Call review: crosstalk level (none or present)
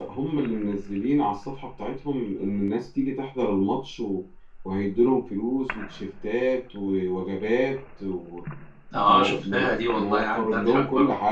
present